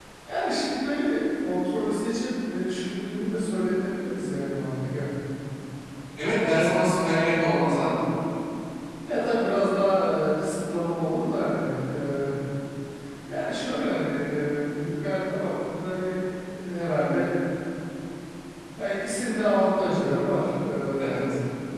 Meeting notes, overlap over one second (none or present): none